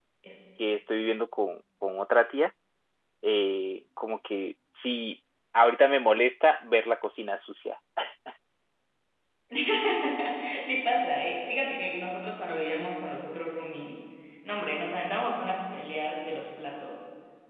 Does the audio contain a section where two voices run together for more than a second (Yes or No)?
No